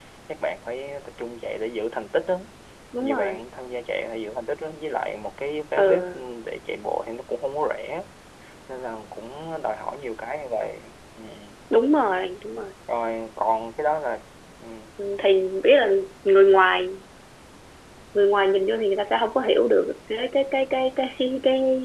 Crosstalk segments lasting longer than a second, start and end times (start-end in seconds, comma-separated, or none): none